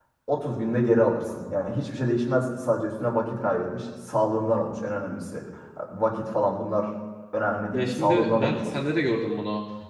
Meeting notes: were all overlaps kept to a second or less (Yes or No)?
No